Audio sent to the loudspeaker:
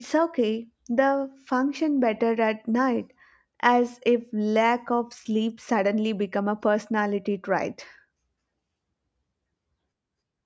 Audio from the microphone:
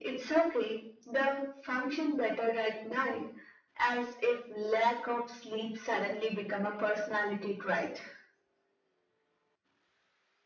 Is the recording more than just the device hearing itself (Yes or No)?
No